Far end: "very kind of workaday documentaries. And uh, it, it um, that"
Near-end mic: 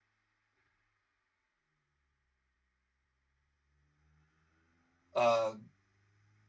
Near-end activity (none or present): present